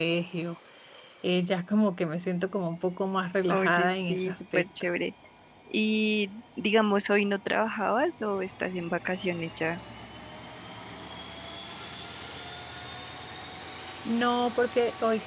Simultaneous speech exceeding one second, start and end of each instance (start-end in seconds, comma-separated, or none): 3.5-4.8